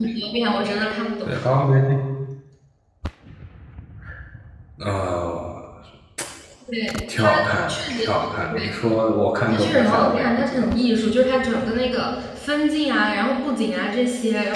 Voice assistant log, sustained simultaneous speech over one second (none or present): present